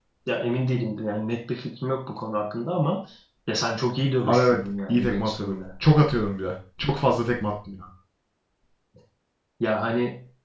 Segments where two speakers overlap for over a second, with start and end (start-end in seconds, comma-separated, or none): 4.3-5.6